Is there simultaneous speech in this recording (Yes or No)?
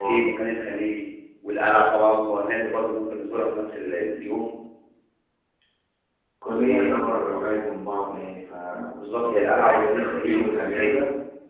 Yes